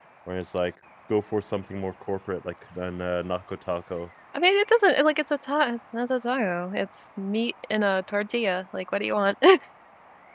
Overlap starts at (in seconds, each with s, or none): none